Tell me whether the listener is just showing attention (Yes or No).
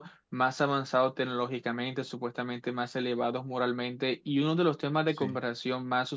Yes